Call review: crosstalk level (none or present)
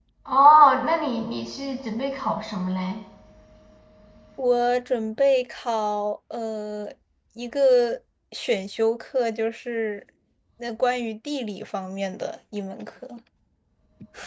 none